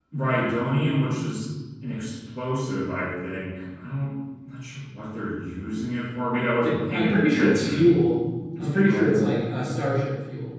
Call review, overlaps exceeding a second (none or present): present